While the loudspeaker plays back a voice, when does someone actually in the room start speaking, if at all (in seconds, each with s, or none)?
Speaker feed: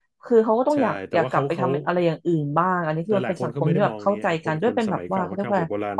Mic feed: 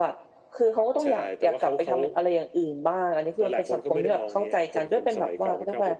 none